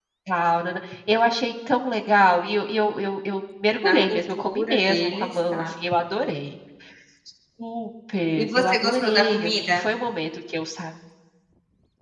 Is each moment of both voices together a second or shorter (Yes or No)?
No